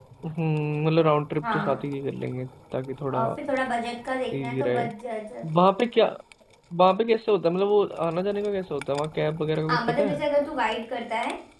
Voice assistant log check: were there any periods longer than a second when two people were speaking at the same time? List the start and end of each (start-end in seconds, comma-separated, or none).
none